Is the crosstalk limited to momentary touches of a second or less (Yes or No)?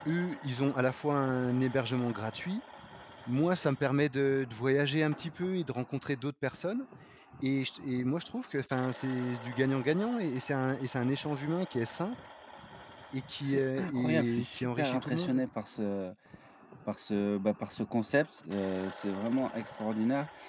No